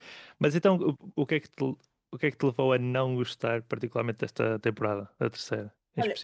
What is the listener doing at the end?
taking over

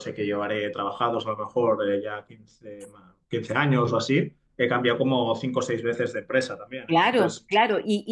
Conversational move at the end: taking over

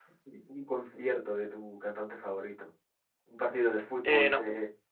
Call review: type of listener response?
listening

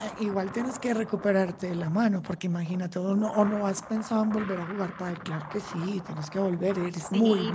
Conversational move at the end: taking over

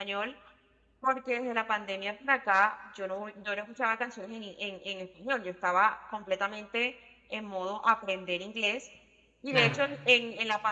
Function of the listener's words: listening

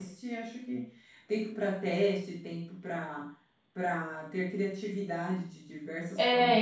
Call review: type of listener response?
taking over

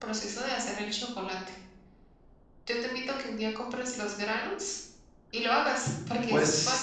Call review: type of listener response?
taking over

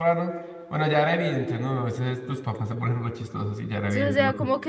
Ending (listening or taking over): taking over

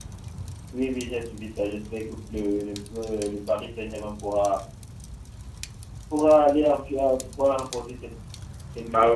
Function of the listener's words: taking over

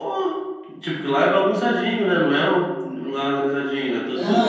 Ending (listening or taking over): taking over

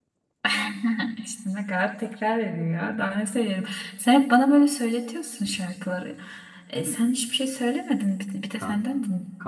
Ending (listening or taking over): taking over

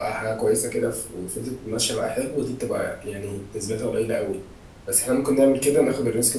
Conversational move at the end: listening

